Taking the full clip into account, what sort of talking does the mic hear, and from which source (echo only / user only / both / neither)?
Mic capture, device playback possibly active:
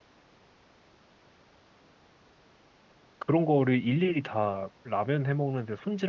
user only